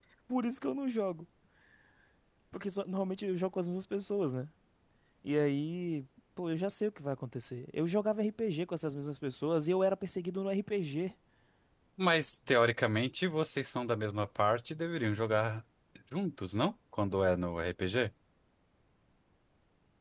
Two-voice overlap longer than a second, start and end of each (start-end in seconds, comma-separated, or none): none